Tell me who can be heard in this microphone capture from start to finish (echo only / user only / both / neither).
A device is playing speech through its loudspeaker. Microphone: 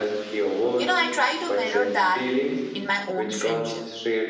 both